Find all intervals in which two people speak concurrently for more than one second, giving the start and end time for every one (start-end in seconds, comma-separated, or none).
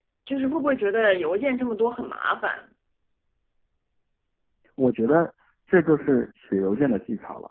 none